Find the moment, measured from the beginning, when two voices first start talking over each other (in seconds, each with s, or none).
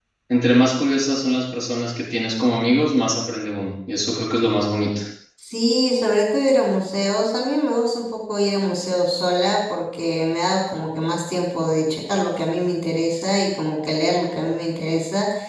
none